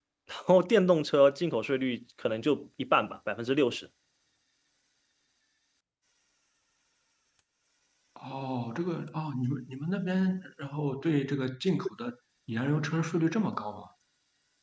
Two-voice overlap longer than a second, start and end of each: none

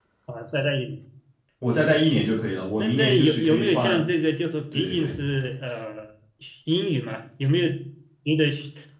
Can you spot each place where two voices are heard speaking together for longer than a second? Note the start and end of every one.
2.8-4.0

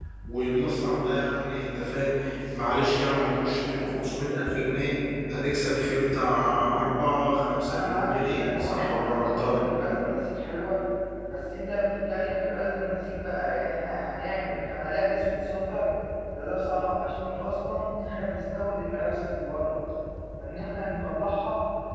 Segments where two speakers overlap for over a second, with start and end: 7.7-9.6

